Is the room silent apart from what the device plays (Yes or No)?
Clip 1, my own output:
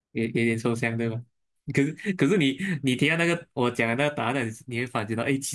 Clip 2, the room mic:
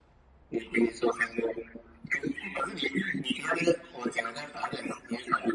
Yes